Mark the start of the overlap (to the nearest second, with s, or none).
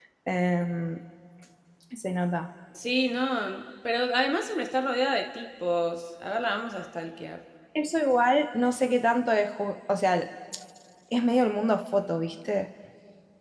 none